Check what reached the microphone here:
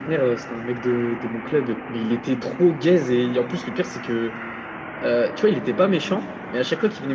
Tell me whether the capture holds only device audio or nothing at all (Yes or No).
Yes